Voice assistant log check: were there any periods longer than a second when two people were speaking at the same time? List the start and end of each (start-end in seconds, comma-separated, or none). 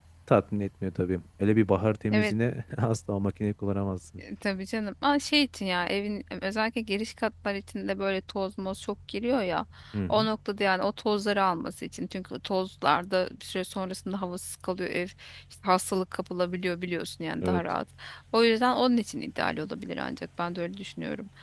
none